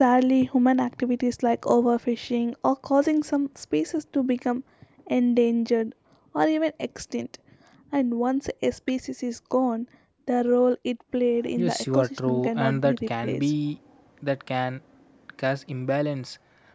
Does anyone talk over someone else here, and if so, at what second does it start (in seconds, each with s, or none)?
11.6 s